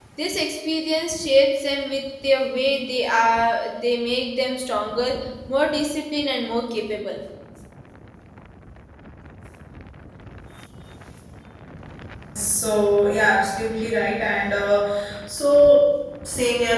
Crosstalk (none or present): none